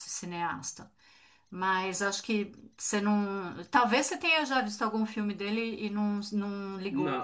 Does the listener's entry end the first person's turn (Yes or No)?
Yes